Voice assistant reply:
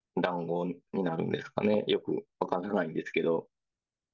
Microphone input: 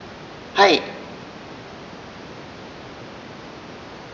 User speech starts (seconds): 1 s

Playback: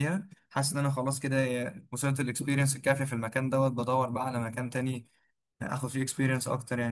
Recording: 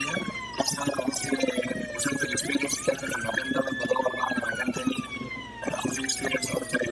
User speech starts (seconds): none

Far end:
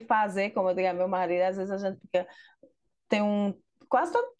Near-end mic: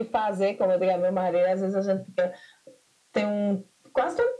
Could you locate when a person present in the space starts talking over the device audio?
none

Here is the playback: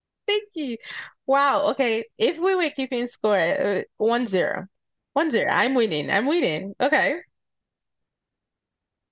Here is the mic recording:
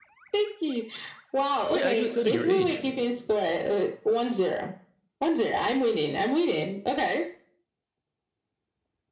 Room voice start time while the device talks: 2 s

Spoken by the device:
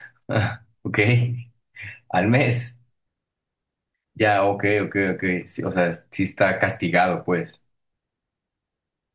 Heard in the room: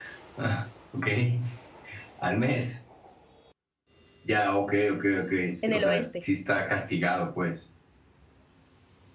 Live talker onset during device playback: 6 s

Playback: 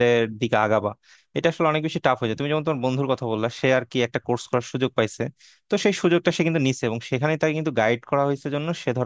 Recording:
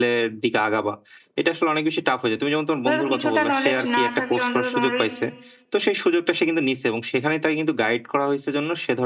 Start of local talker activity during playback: 3 s

